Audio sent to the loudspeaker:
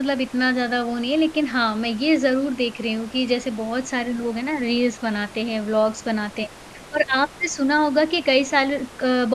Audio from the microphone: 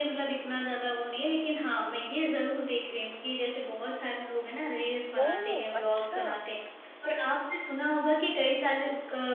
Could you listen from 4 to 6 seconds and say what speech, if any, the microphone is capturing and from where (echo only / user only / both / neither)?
both